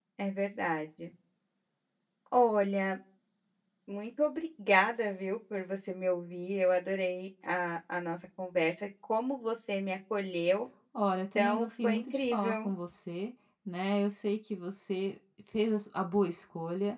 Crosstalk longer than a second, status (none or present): present